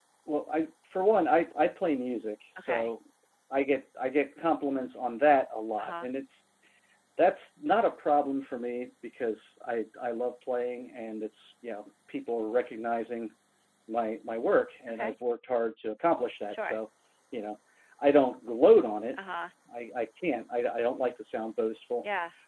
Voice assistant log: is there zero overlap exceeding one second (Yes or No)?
Yes